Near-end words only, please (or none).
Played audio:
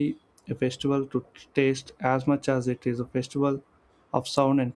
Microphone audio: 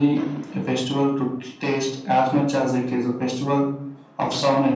none